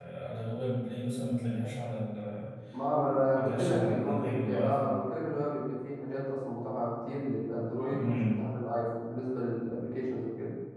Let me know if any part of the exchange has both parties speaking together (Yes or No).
Yes